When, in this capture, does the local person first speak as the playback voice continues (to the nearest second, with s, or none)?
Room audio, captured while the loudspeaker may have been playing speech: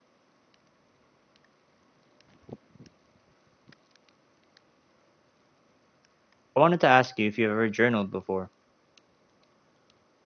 7 s